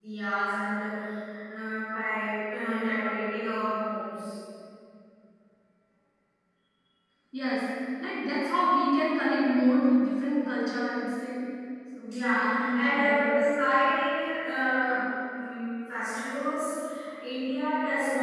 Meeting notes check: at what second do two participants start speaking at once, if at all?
12.1 s

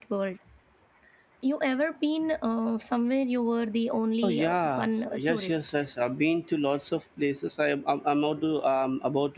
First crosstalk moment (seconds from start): 4.2 s

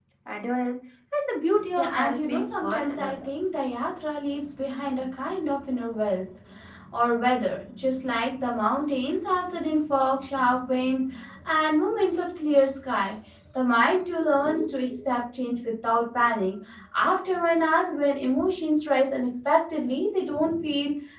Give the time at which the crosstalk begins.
1.8 s

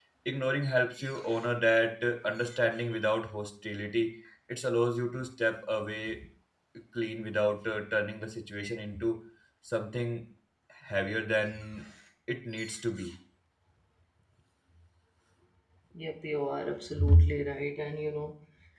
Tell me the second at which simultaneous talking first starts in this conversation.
none

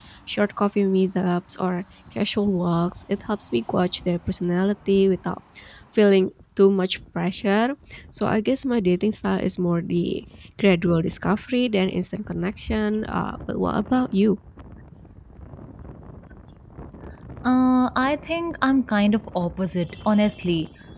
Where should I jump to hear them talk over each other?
none

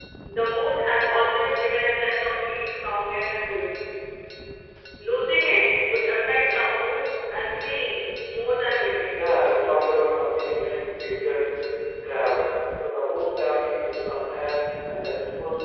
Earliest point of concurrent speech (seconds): none

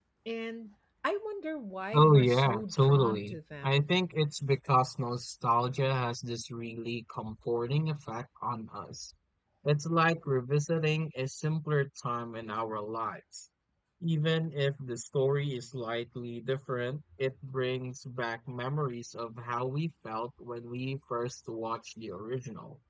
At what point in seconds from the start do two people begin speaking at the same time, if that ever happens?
1.9 s

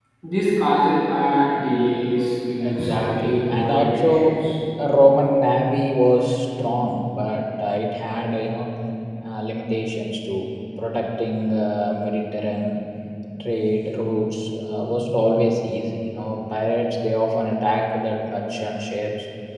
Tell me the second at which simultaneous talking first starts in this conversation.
2.6 s

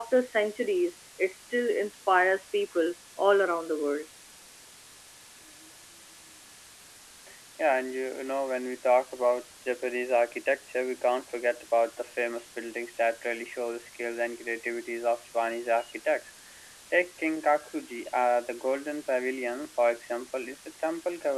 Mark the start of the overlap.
none

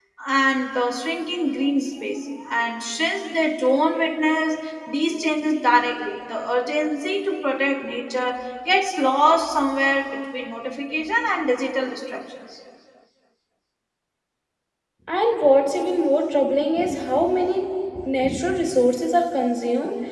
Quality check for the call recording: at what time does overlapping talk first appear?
none

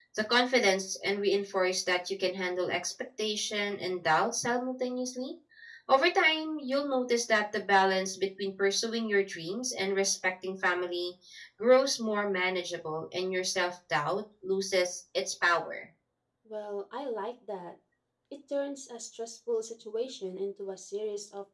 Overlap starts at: none

